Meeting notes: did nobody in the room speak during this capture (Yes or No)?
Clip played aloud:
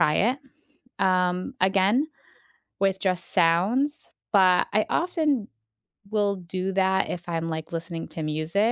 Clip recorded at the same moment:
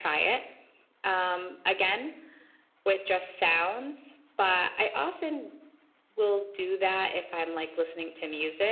Yes